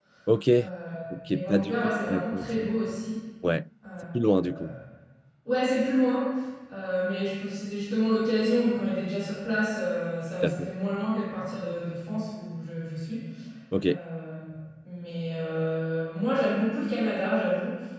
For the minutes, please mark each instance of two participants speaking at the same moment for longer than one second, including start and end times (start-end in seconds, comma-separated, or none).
1.3-2.7